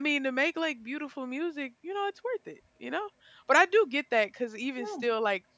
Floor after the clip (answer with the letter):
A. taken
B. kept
B